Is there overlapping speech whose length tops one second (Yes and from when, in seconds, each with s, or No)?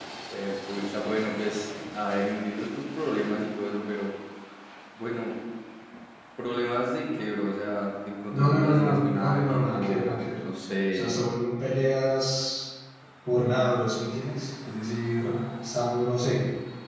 Yes, from 8.3 s